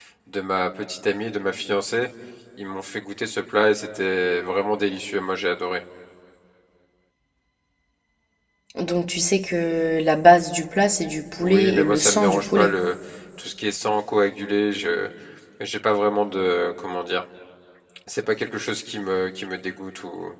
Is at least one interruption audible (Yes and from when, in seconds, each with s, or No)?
Yes, from 11.4 s